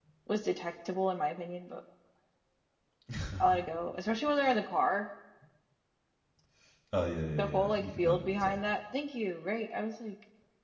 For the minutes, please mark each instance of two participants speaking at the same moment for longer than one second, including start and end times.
7.4-8.6

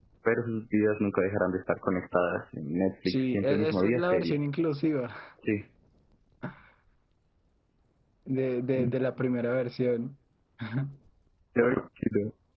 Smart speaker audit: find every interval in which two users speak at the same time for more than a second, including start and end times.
3.0-4.4

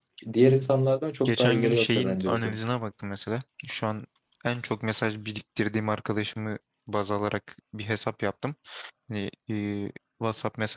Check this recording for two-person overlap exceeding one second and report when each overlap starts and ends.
1.2-2.5

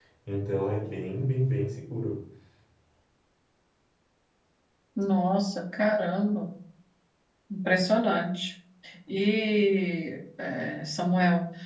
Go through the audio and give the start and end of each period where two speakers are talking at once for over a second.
none

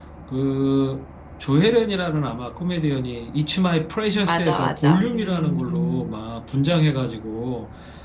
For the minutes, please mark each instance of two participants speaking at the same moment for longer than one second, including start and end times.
4.1-6.1

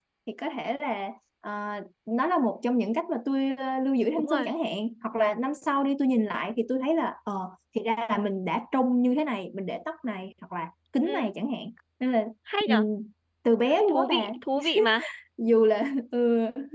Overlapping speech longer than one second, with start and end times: none

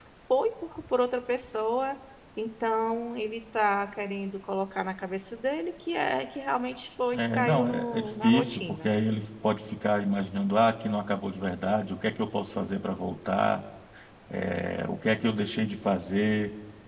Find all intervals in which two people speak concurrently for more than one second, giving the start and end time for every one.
7.1-8.9

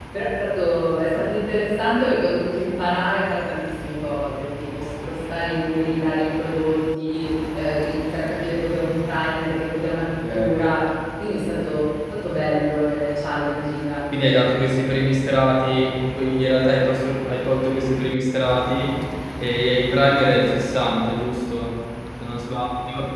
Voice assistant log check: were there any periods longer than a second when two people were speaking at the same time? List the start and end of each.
none

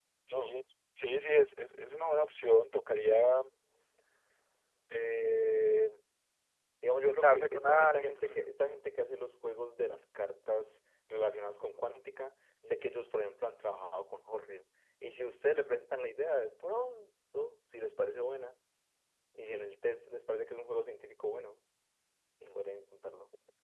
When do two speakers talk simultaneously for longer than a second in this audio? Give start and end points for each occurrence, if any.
7.1-8.4

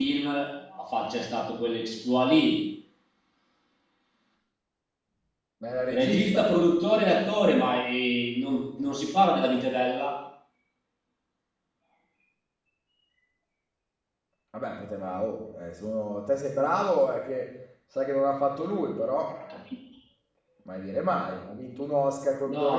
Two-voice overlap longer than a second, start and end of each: none

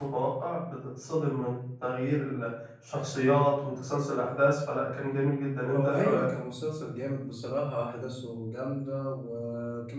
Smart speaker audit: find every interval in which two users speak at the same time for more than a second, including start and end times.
none

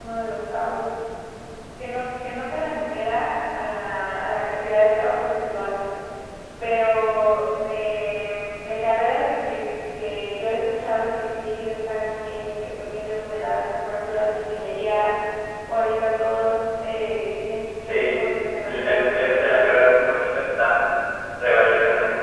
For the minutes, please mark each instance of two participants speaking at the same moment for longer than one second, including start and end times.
18.6-20.0

